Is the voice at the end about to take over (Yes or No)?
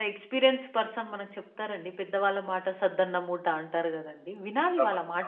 Yes